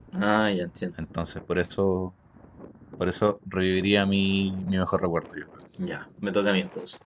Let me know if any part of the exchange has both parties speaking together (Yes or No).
No